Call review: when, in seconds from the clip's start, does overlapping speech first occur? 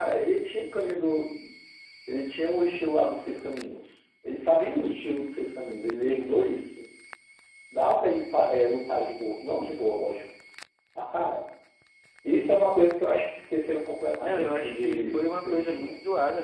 14.2 s

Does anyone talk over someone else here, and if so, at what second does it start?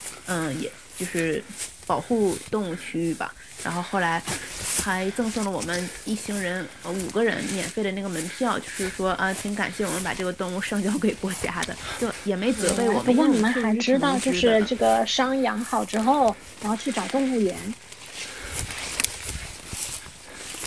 12.6 s

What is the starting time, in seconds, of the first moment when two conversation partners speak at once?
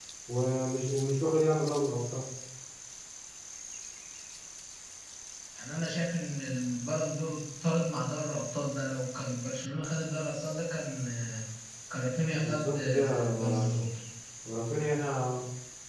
12.4 s

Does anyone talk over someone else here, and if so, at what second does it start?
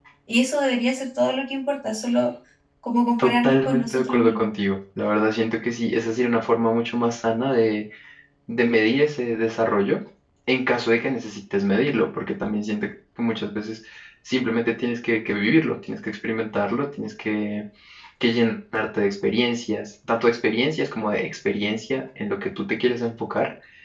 3.2 s

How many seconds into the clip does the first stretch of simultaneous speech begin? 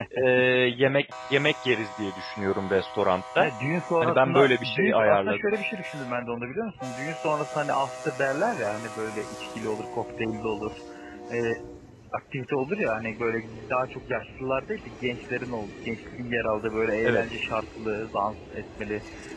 4.0 s

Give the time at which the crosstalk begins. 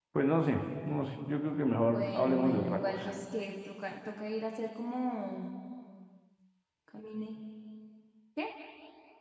1.9 s

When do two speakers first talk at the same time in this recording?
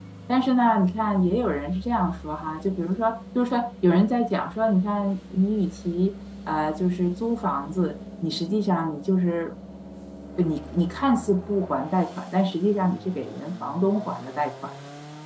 none

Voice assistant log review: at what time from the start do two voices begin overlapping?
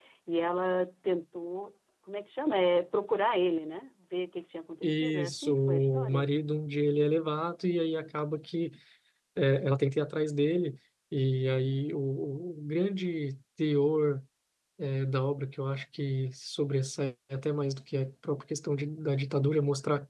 4.8 s

